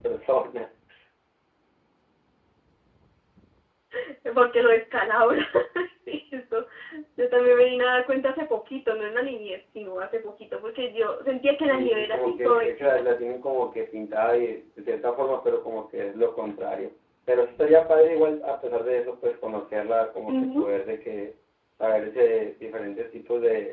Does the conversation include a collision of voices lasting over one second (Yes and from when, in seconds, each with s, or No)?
Yes, from 11.7 s